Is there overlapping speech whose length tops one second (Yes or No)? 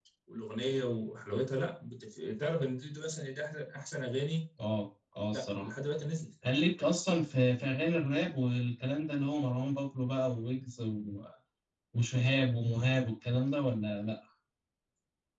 No